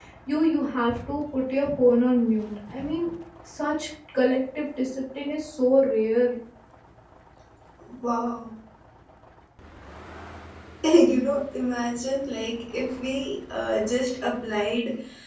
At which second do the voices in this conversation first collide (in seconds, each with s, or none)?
none